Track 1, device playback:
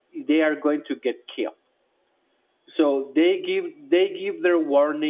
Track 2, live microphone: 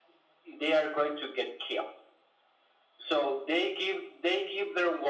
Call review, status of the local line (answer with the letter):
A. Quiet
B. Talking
A